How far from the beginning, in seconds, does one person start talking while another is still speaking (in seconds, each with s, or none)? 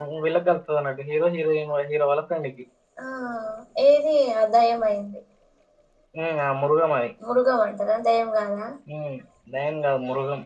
none